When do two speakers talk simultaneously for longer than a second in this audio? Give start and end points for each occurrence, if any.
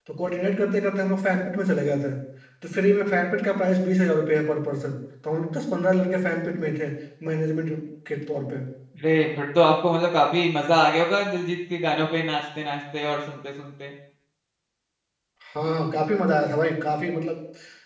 none

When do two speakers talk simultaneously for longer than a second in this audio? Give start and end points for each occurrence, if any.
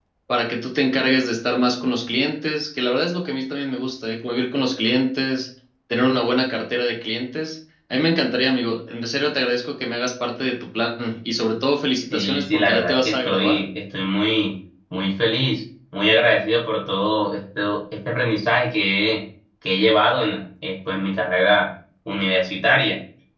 12.1-13.6

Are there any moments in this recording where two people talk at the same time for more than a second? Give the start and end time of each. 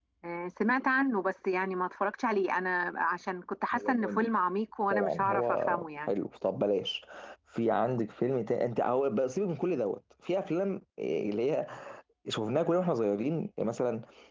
4.9-6.1

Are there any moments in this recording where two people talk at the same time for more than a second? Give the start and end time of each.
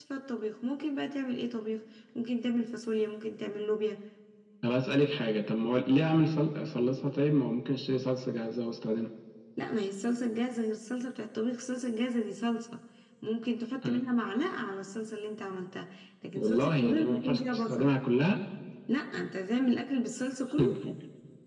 16.4-17.9

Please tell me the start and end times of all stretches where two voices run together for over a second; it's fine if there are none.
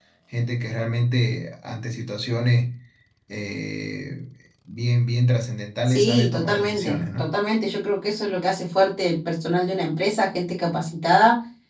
5.9-7.3

